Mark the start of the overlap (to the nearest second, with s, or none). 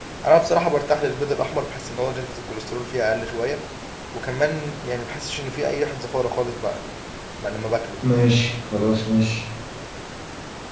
none